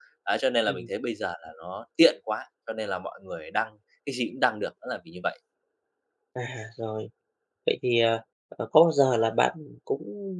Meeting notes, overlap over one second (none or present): none